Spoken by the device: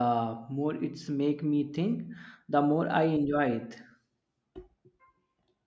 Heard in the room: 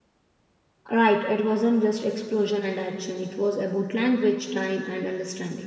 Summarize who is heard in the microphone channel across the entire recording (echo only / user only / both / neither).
user only